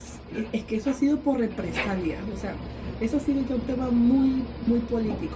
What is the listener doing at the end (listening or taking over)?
listening